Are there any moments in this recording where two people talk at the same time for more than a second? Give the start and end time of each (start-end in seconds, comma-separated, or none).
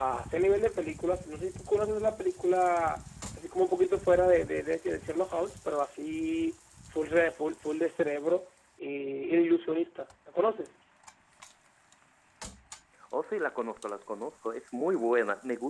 none